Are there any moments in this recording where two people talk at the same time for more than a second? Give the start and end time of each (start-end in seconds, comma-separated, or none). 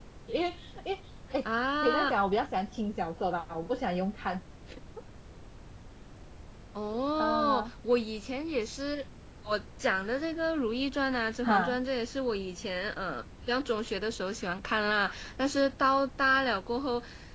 none